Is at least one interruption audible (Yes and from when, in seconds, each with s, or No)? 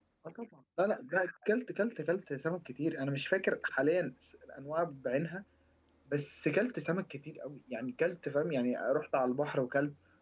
No